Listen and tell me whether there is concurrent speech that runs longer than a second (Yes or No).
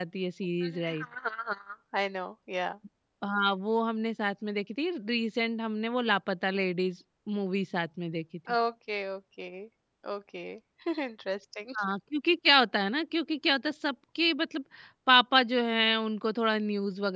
No